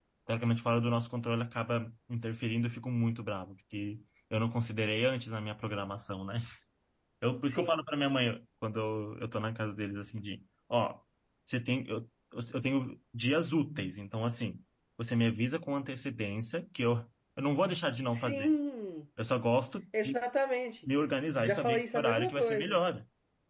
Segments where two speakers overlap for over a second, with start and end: 21.4-22.8

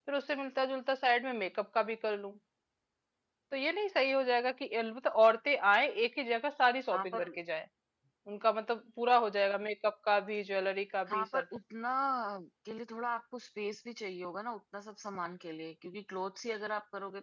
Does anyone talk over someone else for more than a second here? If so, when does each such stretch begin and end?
none

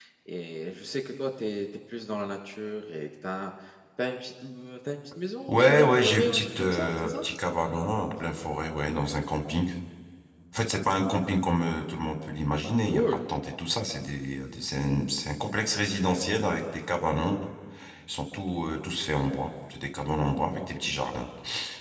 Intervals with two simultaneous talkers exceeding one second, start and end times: 5.5-7.2

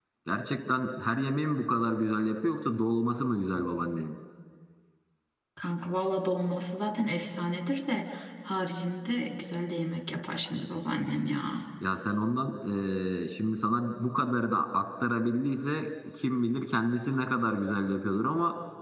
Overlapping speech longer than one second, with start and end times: none

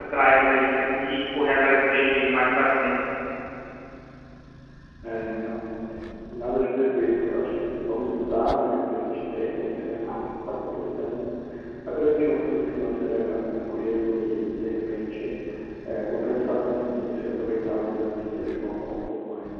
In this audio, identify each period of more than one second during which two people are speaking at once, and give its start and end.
none

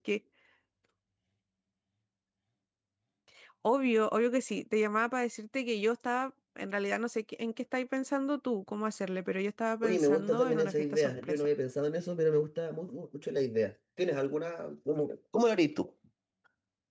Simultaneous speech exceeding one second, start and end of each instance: 9.8-11.5

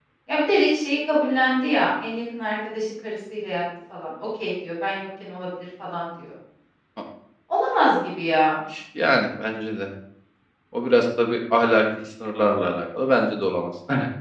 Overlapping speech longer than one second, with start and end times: none

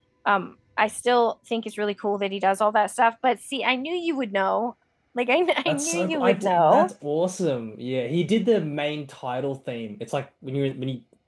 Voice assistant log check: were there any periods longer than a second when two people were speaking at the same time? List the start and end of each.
5.7-6.9

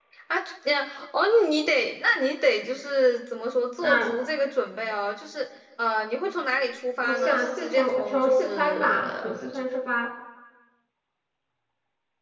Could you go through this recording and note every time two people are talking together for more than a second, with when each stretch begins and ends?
7.0-9.0

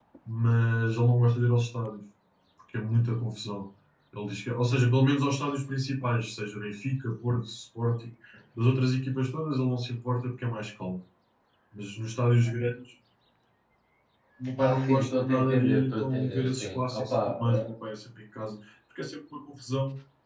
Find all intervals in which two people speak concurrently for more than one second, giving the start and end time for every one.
14.6-17.7

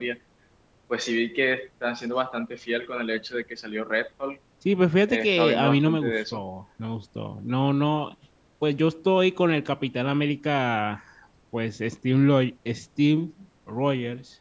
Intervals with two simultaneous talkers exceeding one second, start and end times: 5.1-6.4

